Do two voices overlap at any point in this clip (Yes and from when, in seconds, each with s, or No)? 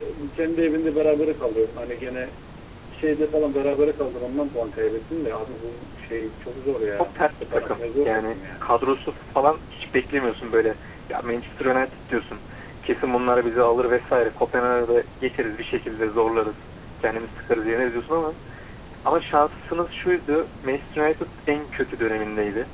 Yes, from 7.0 s